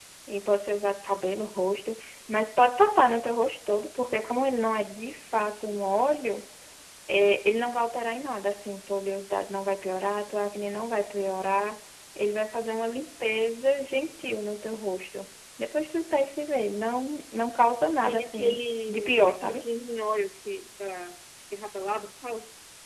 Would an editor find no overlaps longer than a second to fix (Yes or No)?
No